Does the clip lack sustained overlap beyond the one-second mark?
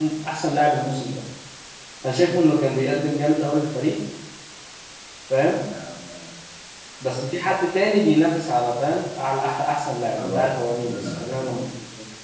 No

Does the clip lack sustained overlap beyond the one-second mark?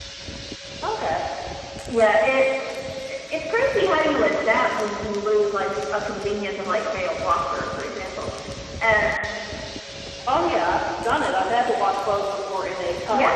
Yes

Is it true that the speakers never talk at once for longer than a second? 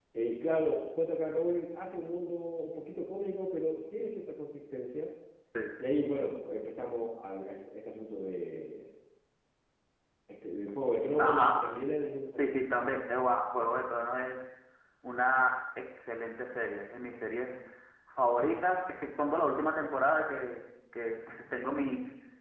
Yes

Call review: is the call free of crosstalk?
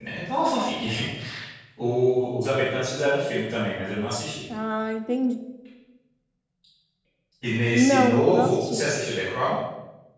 No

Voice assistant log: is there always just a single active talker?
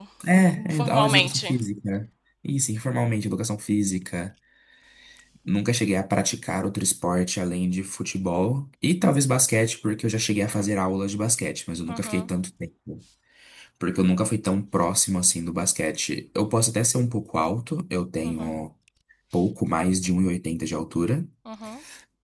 No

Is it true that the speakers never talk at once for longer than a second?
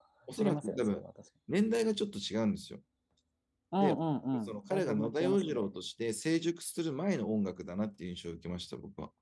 No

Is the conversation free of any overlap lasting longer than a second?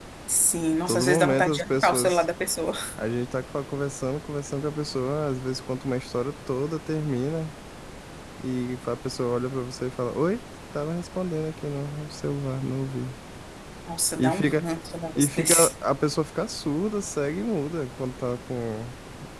No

